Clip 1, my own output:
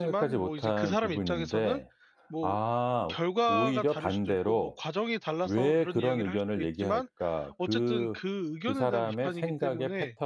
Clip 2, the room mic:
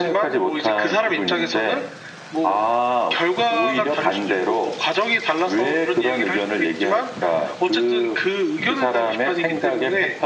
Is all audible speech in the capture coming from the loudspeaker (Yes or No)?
Yes